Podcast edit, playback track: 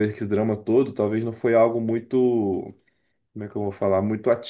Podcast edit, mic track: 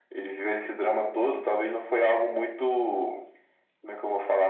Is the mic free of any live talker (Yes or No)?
Yes